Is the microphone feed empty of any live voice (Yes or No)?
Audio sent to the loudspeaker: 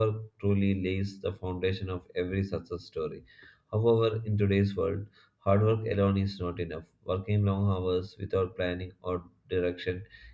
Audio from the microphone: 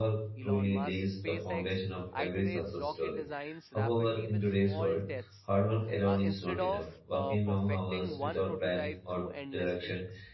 No